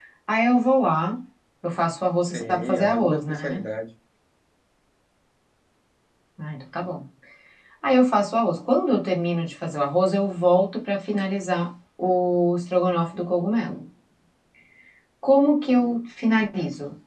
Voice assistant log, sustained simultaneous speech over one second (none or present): present